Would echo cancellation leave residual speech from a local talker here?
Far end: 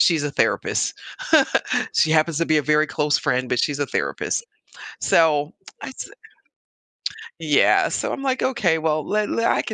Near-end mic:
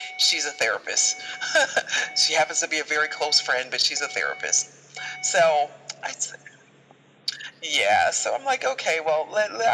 No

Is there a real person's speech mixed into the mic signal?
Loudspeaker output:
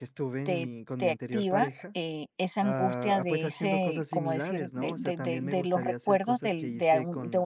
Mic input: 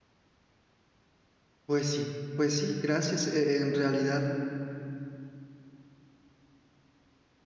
Yes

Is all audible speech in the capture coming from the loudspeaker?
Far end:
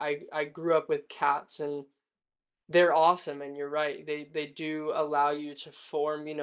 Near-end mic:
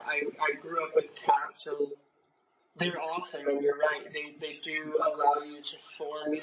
Yes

